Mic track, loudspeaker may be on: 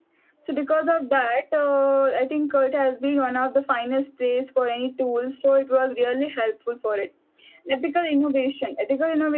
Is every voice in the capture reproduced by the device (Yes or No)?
Yes